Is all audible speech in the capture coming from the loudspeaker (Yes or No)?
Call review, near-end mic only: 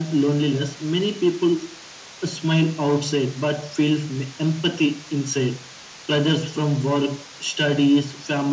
Yes